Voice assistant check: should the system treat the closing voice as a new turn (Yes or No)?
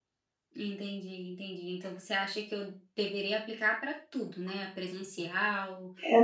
Yes